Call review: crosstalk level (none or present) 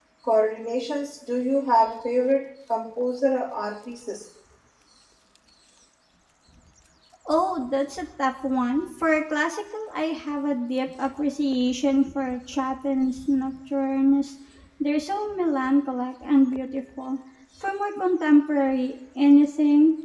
none